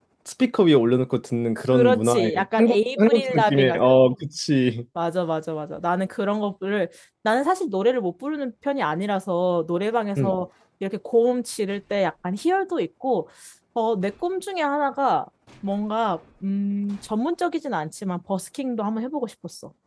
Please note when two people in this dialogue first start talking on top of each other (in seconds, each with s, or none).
1.6 s